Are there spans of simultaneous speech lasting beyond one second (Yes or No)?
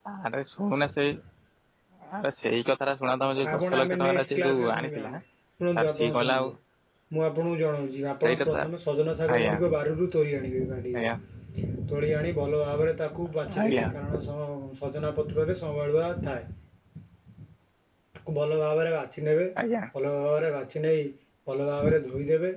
Yes